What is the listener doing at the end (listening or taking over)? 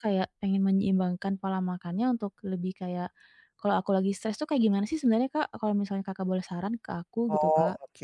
taking over